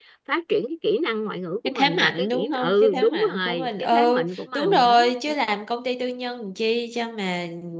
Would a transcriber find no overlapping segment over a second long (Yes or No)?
No